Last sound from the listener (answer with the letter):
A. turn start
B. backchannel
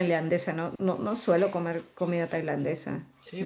A